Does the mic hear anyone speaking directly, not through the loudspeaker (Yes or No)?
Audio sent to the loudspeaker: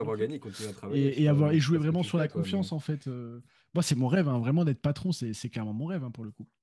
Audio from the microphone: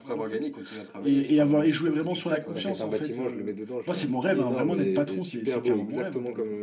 Yes